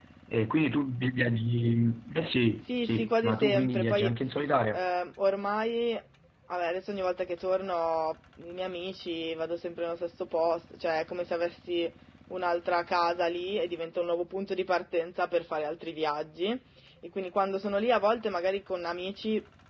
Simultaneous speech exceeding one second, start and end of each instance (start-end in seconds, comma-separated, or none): 2.8-4.1